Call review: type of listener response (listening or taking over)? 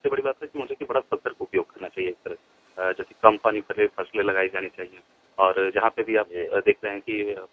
listening